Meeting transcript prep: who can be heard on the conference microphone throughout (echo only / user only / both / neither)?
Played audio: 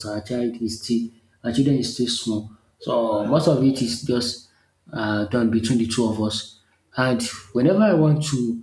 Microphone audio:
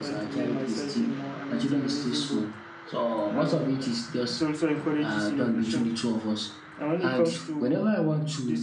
both